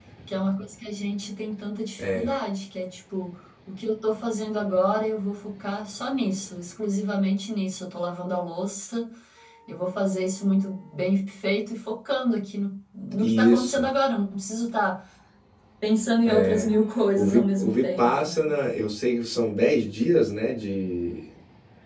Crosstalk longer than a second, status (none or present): present